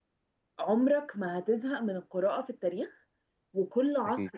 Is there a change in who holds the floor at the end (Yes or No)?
No